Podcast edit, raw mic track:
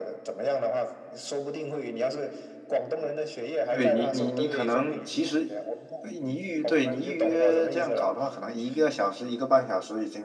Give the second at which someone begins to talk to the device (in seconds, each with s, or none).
3.7 s